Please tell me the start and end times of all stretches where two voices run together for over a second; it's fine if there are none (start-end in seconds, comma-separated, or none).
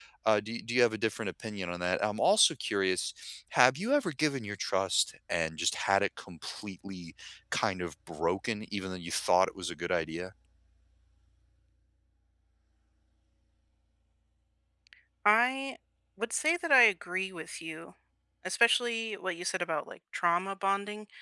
none